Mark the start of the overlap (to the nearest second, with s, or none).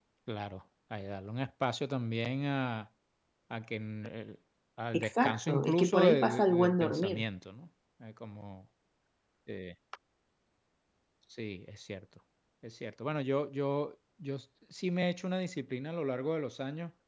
5 s